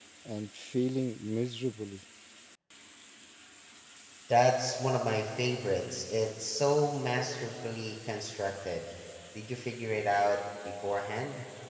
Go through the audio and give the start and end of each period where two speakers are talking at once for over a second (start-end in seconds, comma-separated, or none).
none